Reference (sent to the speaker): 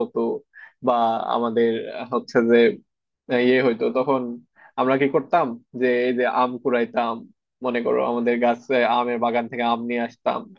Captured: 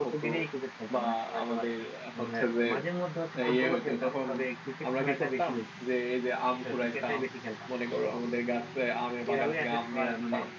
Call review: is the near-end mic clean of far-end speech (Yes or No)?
No